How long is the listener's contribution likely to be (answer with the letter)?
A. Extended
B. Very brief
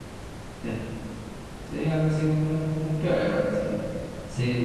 A